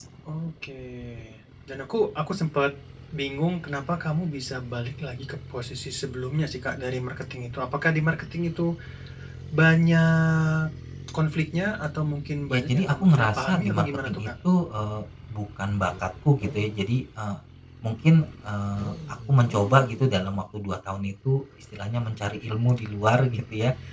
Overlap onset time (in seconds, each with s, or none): 12.5 s